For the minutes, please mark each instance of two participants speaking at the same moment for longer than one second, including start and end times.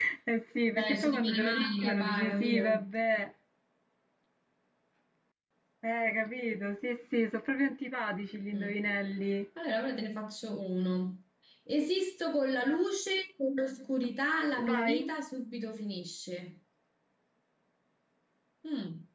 0.8-2.9

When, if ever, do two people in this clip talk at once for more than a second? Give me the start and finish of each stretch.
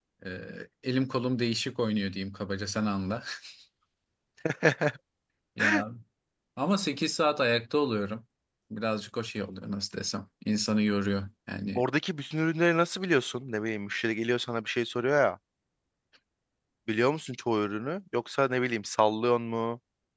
none

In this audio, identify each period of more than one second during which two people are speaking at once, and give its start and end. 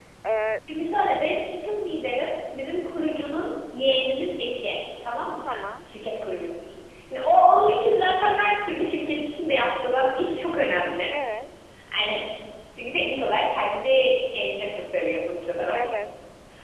none

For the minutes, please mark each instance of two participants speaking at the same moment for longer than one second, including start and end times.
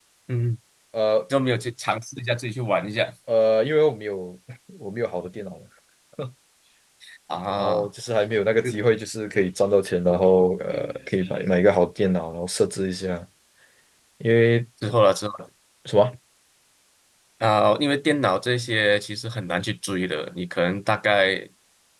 none

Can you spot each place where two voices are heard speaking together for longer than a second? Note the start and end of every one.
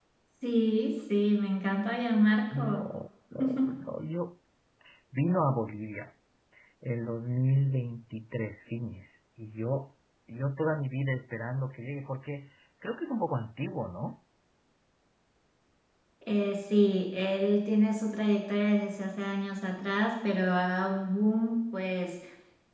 none

